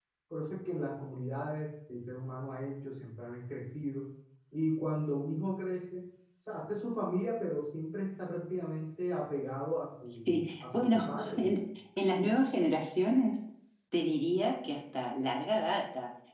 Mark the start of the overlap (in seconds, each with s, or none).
10.1 s